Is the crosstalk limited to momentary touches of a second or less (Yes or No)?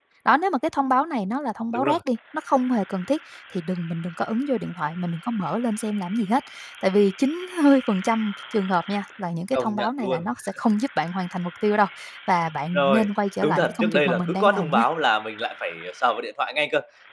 No